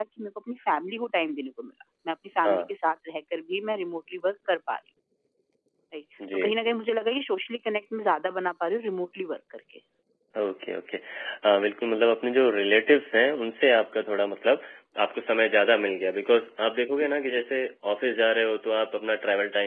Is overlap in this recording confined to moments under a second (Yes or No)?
Yes